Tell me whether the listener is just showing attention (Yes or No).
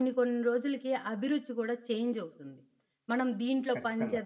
Yes